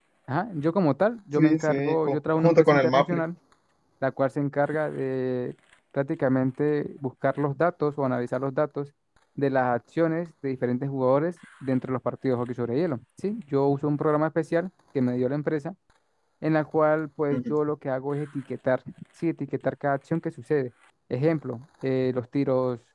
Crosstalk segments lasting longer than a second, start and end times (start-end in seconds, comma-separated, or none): 1.4-3.2